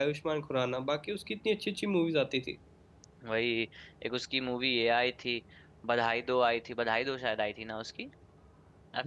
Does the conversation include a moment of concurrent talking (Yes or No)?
No